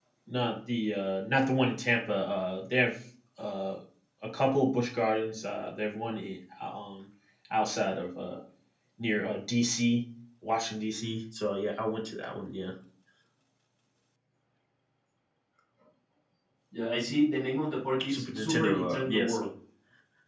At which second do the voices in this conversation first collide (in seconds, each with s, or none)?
18.0 s